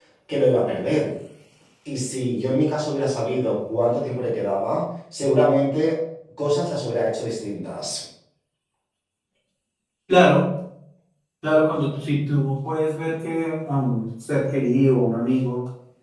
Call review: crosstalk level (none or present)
none